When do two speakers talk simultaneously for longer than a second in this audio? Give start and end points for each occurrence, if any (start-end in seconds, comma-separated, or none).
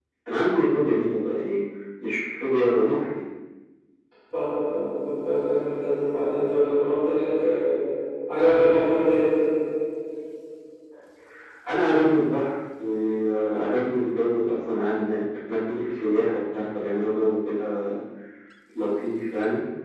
none